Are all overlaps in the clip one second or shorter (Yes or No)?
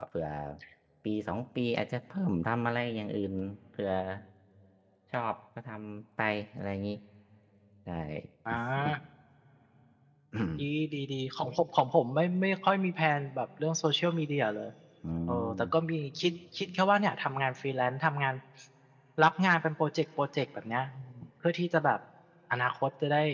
Yes